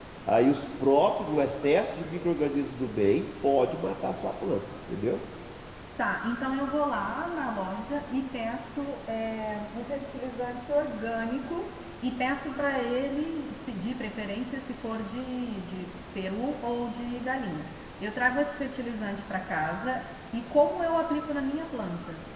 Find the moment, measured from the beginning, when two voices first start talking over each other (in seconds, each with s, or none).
none